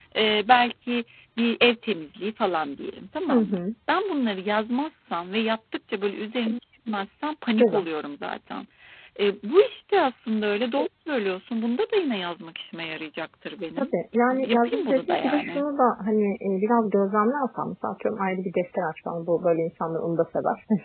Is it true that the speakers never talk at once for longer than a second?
No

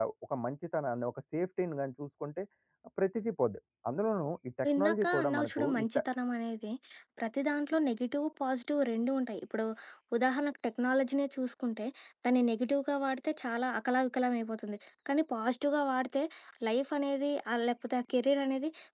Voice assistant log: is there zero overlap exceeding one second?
No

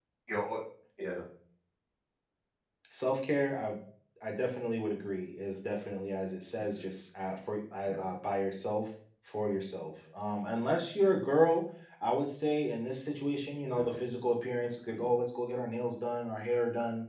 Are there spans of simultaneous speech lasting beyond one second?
No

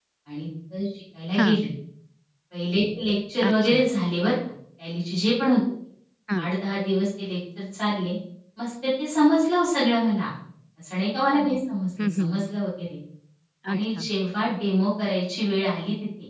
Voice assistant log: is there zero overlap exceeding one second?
Yes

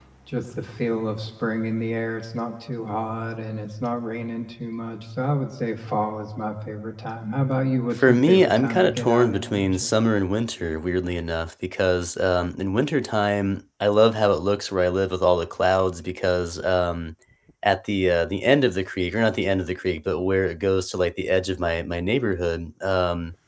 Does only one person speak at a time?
No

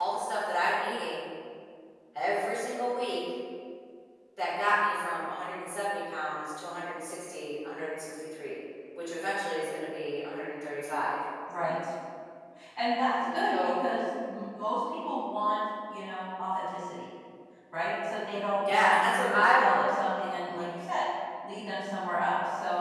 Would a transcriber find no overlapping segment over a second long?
No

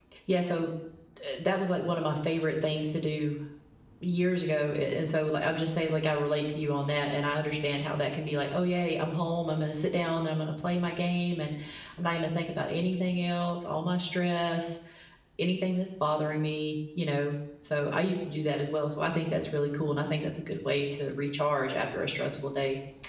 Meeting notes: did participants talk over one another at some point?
No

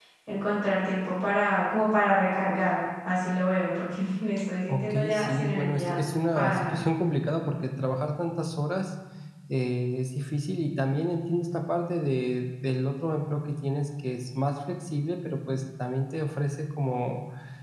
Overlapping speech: Yes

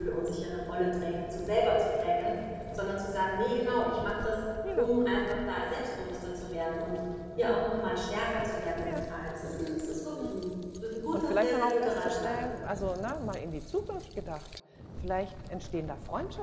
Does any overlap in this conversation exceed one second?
Yes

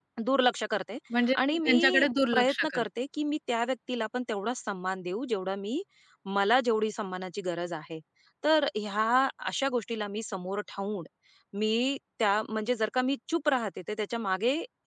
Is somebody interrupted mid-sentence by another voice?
Yes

